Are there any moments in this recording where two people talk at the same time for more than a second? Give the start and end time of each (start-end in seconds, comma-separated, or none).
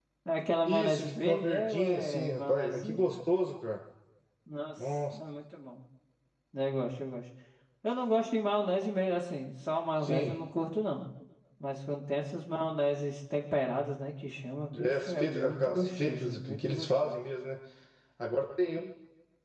0.7-3.1, 14.8-17.2